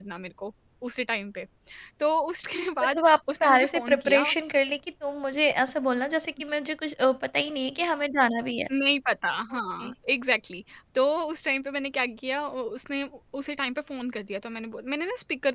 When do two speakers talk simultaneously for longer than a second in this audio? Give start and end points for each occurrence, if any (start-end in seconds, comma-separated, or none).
2.8-4.2